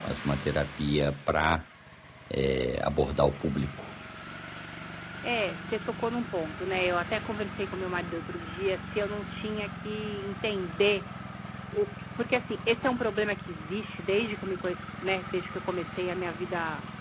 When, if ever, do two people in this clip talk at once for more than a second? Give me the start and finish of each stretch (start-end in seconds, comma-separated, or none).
none